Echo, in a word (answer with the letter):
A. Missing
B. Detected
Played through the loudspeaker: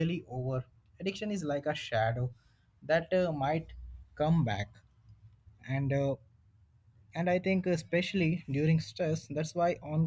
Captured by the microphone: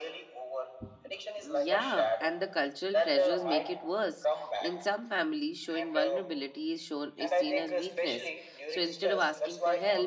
B